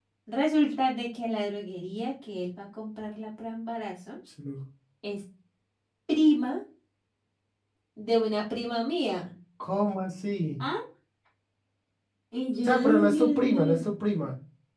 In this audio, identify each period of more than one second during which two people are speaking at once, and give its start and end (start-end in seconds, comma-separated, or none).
12.6-13.8